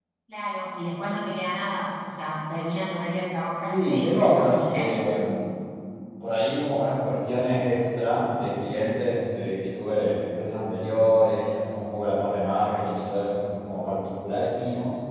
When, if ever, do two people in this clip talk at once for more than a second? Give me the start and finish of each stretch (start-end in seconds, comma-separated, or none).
3.6-5.0